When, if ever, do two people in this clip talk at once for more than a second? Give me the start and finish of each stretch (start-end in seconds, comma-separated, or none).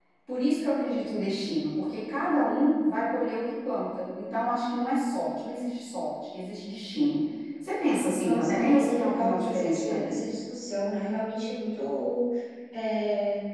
8.2-10.2